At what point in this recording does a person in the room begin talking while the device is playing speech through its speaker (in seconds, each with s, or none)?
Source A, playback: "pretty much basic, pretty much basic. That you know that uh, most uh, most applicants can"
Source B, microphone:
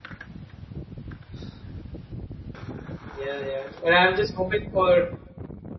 3.1 s